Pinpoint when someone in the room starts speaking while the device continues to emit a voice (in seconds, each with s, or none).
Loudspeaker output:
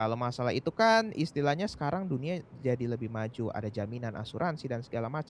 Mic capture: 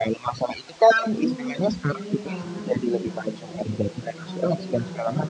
1.1 s